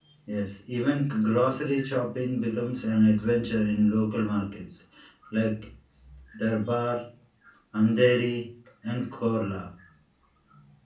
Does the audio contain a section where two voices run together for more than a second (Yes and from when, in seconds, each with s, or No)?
No